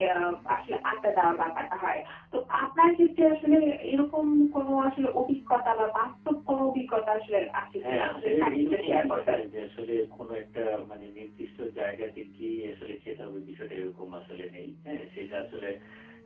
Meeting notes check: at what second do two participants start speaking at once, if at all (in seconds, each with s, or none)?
7.8 s